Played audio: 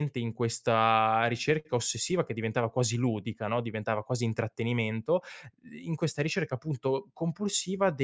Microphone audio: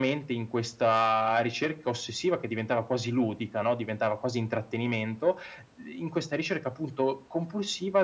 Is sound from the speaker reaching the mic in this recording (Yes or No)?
Yes